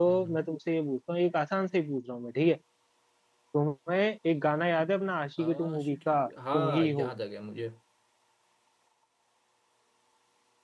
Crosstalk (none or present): present